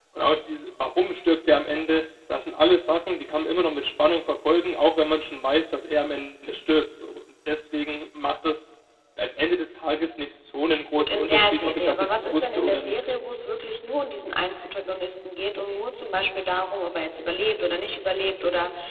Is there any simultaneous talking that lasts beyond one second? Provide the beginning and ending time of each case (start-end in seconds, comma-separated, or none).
10.9-13.0